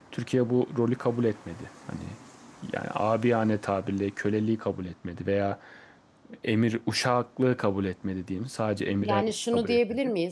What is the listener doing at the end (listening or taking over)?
taking over